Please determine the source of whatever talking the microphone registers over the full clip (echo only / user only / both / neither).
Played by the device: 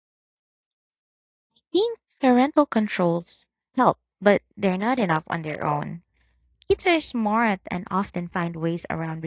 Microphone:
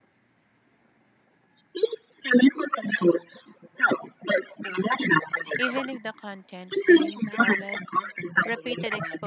both